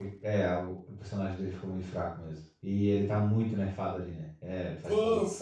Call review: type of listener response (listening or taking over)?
taking over